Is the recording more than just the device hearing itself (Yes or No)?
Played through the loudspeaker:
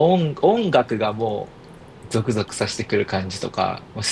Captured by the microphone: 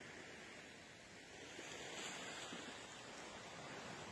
No